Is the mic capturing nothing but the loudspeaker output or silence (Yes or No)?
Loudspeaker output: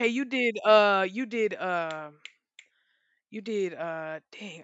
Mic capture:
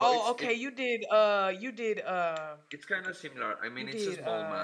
No